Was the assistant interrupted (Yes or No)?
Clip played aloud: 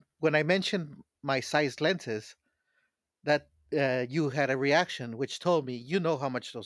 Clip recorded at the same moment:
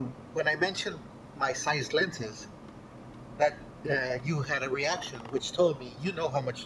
No